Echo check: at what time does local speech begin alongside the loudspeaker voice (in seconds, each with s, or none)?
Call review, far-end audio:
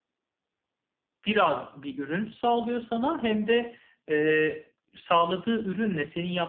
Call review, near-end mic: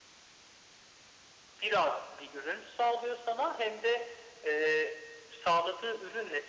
none